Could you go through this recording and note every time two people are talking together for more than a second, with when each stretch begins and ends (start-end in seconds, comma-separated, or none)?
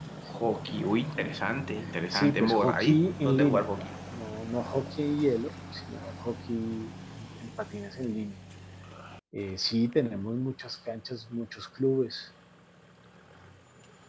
2.1-3.9